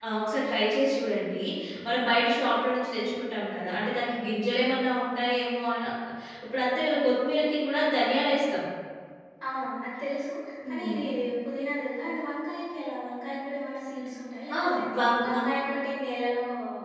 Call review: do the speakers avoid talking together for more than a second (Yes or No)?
Yes